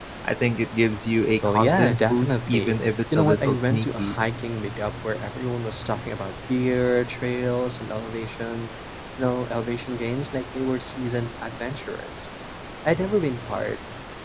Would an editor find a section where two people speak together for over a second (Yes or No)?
Yes